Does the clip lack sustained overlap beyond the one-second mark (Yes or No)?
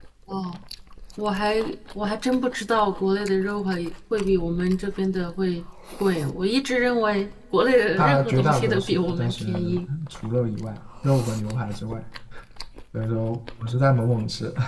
No